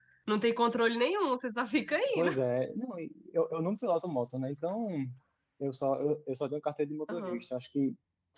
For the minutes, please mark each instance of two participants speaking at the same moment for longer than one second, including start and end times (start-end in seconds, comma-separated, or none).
none